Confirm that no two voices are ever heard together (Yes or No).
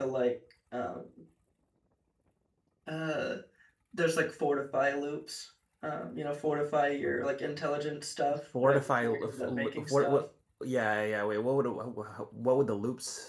No